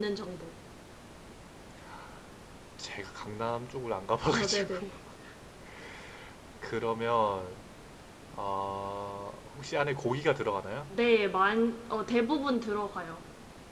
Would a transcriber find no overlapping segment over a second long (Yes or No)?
Yes